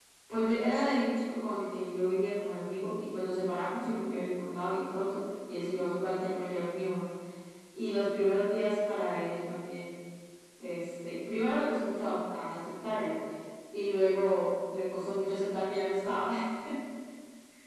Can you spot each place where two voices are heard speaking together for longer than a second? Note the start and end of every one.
none

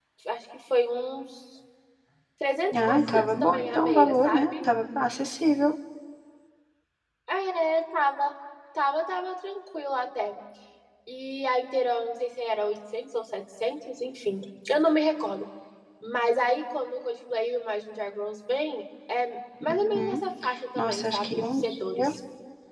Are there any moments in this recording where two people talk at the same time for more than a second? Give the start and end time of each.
2.8-4.5, 20.8-22.1

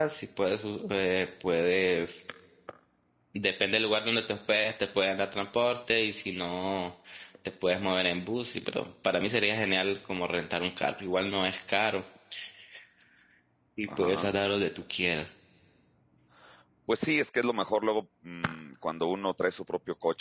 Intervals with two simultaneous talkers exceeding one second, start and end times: none

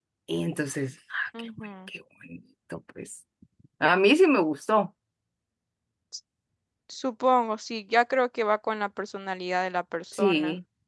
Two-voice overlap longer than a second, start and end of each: none

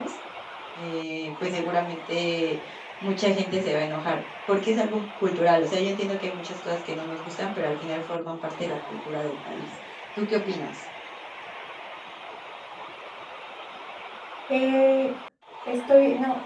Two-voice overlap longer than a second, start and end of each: none

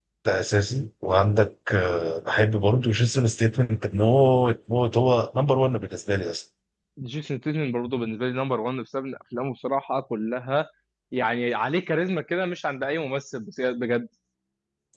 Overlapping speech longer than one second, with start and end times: none

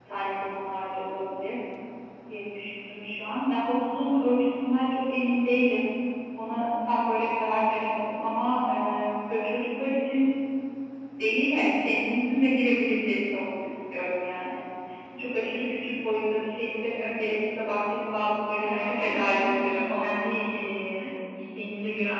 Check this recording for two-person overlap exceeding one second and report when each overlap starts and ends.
18.6-20.4

